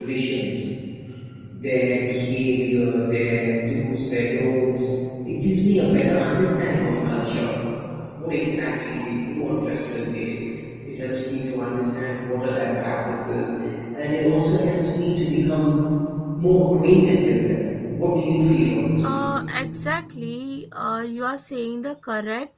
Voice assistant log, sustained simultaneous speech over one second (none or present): none